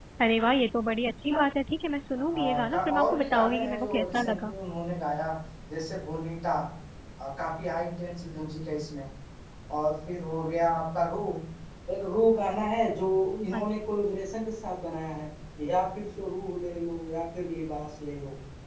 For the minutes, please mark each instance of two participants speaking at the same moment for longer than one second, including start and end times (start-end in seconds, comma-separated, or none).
2.3-4.5